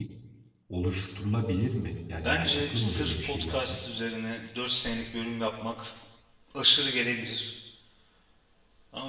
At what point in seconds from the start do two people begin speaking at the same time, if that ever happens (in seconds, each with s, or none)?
2.2 s